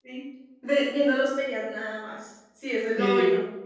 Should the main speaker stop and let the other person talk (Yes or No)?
Yes